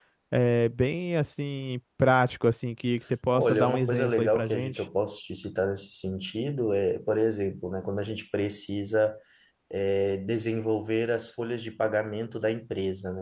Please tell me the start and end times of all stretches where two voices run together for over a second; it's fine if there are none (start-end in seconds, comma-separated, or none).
3.3-4.8